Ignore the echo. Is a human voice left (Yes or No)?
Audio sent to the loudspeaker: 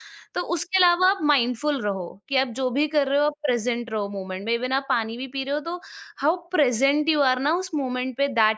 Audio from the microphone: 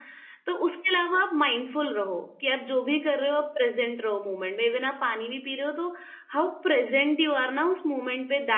No